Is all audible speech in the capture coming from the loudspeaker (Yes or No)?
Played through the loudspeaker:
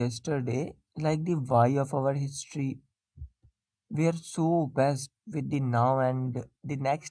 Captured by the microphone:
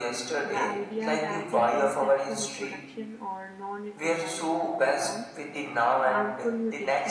No